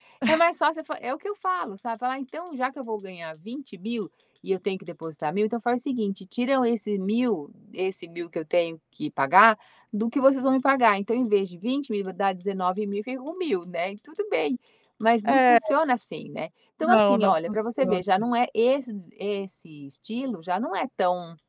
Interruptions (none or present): present